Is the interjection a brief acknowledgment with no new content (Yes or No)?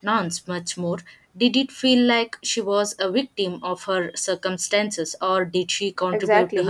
No